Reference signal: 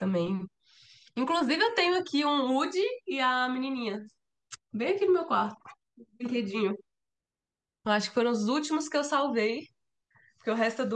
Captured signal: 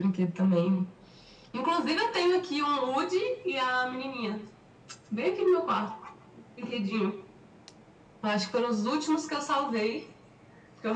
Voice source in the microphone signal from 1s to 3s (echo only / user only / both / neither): echo only